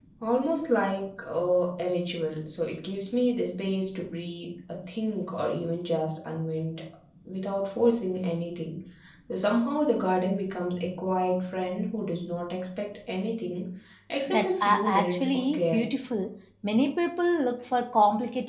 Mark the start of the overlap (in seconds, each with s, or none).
14.3 s